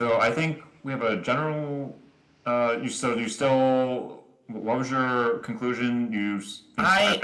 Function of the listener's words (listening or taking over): taking over